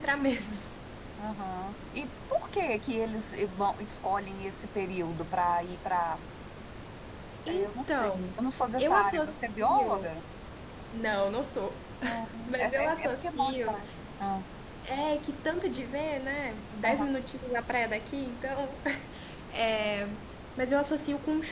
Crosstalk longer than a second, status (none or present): present